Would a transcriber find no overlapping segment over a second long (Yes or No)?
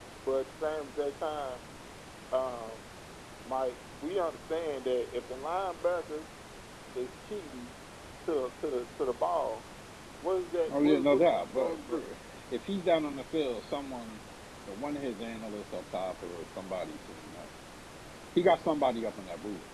No